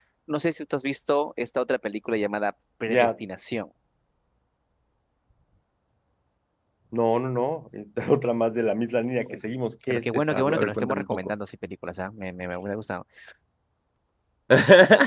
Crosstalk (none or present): present